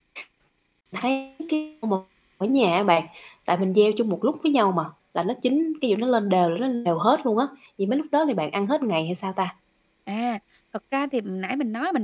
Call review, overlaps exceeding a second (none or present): none